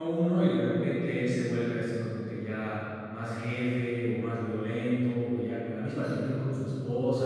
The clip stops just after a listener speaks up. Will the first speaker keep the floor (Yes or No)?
Yes